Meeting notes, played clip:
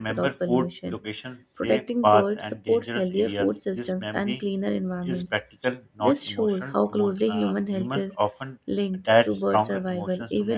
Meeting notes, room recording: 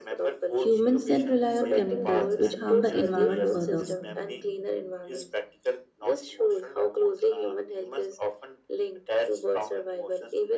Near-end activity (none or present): present